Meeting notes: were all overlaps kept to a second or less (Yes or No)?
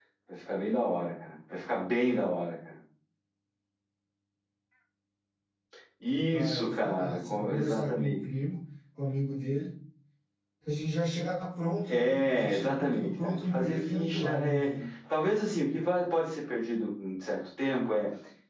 No